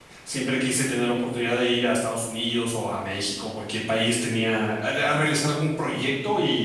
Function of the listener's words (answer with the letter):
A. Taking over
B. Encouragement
B